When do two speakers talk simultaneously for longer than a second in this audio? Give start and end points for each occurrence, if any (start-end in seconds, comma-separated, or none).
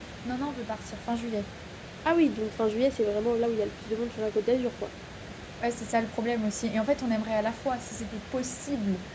none